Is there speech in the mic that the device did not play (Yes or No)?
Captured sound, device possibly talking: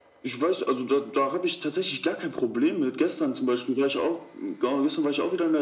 No